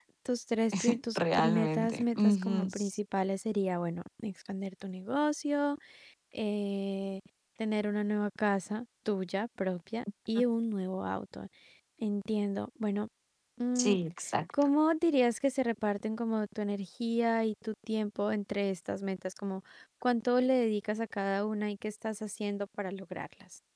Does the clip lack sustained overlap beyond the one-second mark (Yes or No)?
No